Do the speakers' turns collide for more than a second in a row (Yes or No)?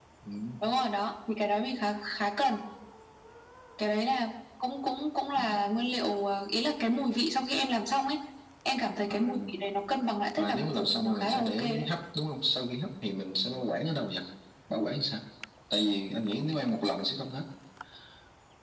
Yes